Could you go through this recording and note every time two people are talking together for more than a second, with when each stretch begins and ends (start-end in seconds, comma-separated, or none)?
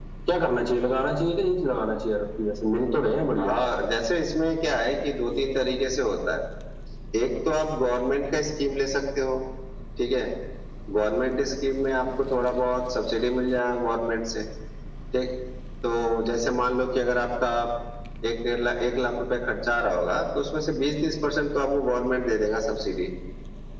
none